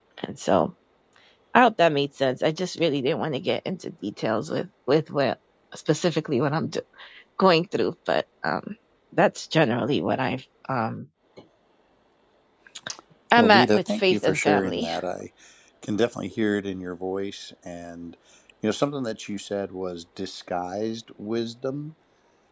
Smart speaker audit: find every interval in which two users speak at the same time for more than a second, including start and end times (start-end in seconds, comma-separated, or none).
13.4-14.9